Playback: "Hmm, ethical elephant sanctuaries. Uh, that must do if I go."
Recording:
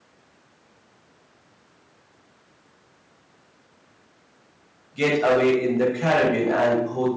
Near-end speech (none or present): present